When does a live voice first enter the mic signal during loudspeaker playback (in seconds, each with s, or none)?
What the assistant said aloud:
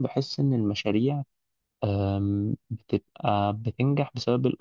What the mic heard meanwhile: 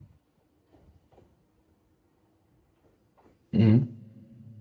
3.5 s